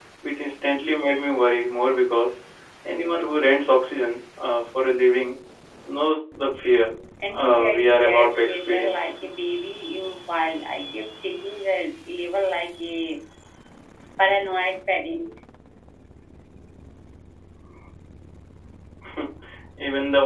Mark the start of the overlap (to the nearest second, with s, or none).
7 s